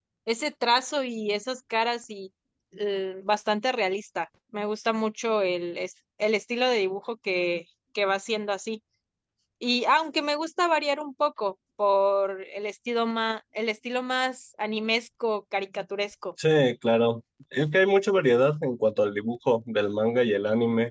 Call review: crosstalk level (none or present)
none